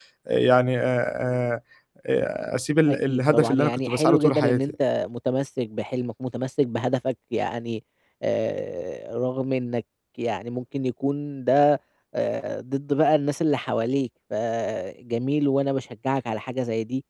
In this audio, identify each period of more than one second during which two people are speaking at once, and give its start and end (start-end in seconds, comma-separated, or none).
2.9-4.6